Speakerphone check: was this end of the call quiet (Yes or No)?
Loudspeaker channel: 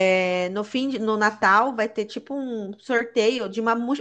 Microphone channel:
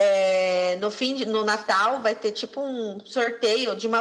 Yes